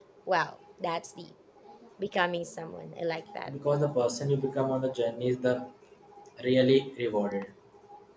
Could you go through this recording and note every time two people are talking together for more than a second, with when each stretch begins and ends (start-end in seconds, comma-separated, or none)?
none